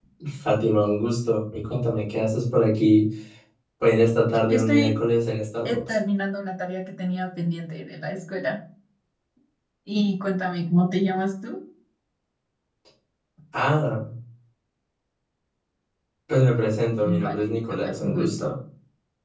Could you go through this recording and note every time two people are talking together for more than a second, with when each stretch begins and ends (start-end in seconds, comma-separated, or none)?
17.1-18.6